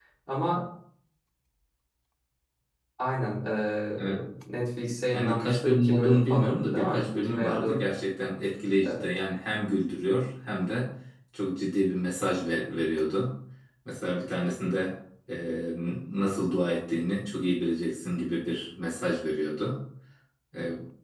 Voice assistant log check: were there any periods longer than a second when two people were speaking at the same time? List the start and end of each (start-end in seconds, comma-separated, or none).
5.1-7.8